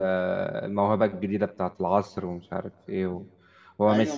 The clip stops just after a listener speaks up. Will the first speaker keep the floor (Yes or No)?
No